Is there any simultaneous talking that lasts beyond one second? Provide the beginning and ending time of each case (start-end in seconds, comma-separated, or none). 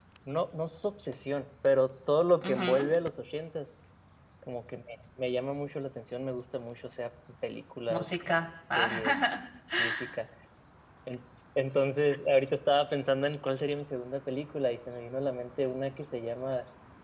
none